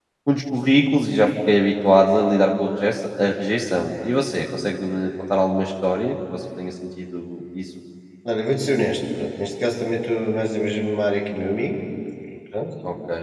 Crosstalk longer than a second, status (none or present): none